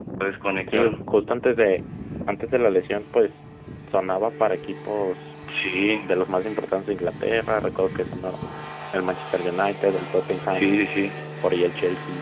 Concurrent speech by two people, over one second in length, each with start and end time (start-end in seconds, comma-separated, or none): none